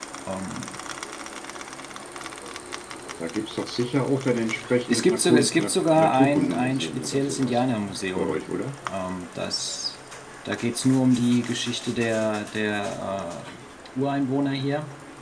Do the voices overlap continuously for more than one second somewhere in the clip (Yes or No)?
Yes